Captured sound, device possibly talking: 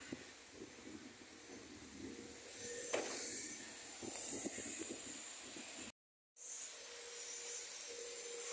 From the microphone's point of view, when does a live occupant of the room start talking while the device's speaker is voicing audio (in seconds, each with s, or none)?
none